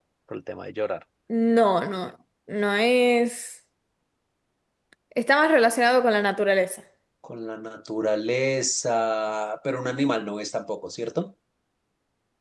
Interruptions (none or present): none